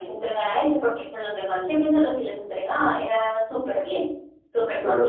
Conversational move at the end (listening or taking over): taking over